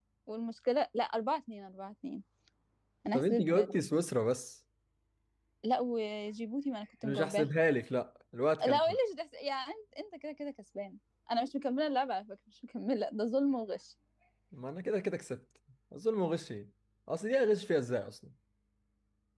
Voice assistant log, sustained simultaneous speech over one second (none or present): none